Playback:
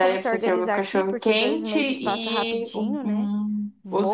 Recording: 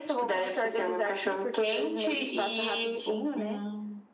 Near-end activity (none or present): none